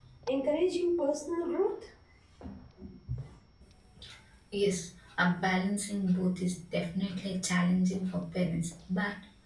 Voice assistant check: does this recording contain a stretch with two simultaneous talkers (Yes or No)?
No